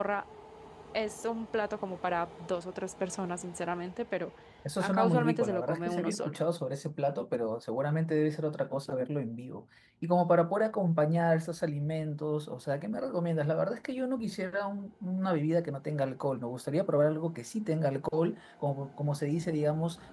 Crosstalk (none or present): present